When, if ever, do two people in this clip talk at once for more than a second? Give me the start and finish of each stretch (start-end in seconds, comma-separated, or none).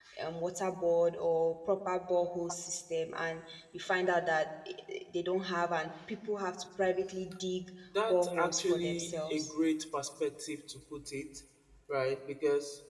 8.1-9.5